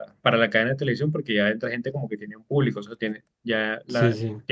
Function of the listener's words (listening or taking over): listening